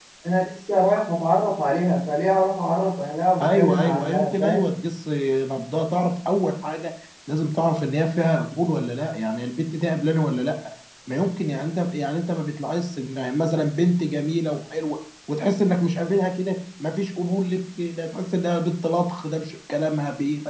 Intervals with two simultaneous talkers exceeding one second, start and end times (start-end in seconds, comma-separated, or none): 3.4-4.6